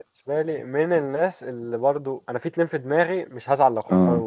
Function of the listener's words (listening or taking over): listening